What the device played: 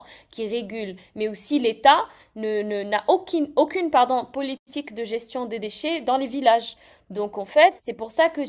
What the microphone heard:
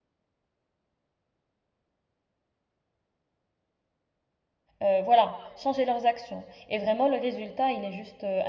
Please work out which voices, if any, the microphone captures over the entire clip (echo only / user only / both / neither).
user only